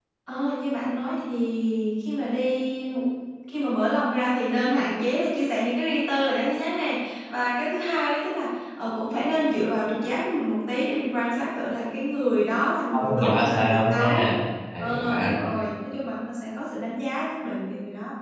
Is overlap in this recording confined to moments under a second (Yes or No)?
No